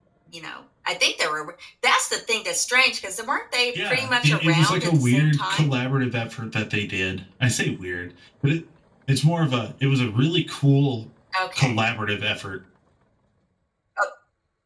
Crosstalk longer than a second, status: present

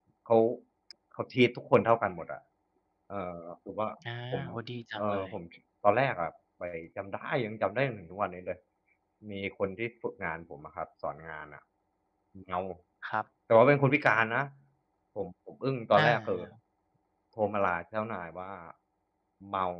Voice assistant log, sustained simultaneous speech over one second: none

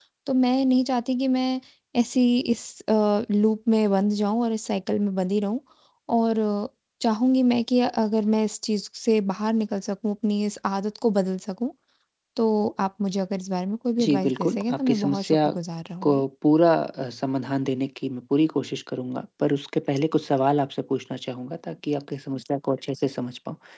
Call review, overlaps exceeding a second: present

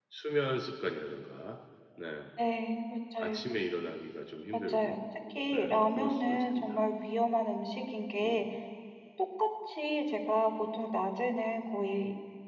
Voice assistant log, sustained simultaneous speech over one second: present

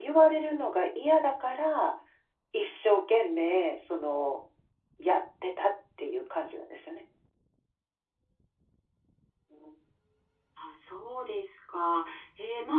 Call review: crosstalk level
none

